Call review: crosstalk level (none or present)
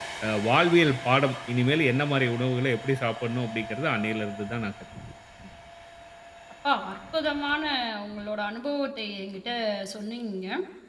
none